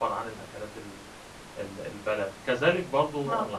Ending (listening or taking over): listening